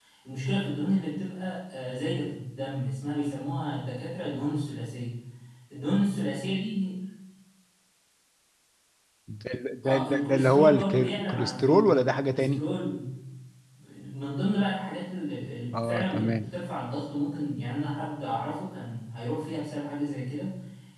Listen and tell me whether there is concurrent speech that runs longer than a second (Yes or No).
Yes